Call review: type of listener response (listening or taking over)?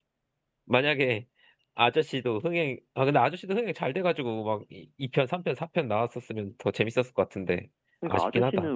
taking over